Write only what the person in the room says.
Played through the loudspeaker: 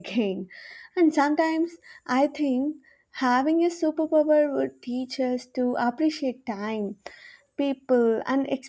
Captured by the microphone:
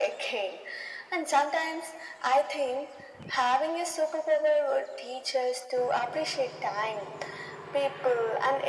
none

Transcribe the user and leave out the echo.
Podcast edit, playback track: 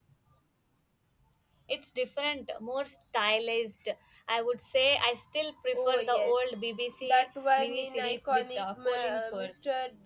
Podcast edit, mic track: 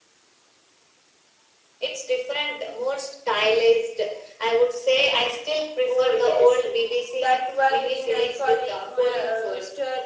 none

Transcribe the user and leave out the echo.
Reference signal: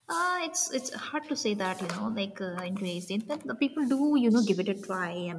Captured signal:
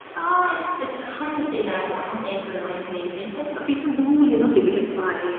none

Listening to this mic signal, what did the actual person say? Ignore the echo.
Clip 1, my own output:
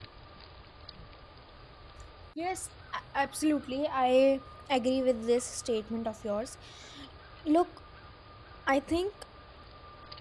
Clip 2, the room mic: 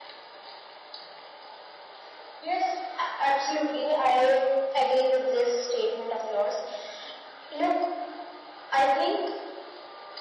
none

